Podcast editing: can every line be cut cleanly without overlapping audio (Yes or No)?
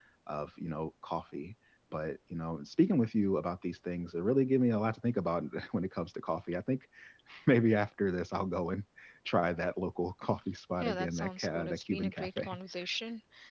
No